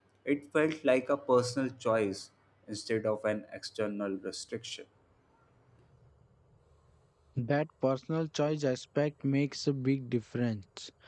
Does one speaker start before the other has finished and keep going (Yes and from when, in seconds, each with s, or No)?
No